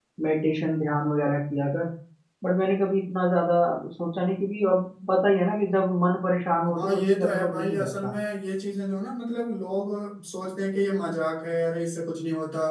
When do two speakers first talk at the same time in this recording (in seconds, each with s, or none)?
6.6 s